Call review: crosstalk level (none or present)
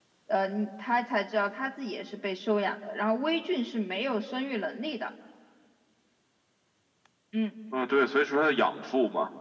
none